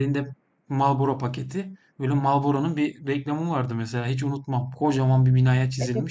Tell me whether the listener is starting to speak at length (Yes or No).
Yes